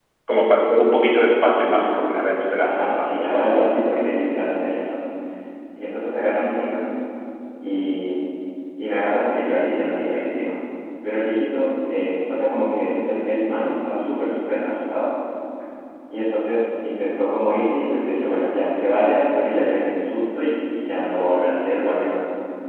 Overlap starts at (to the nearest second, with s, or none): 3 s